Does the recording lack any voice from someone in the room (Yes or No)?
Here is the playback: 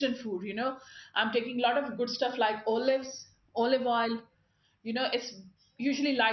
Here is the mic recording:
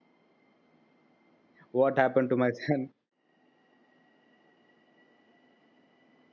No